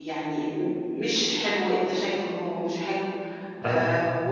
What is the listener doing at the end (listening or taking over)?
listening